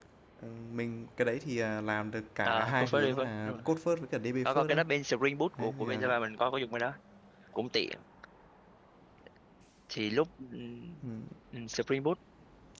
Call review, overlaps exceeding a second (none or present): present